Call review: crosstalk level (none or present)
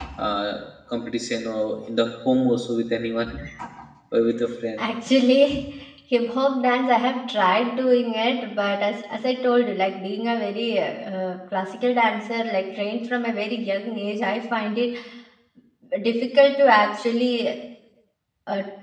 none